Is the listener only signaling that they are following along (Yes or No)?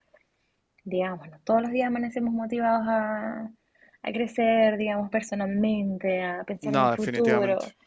Yes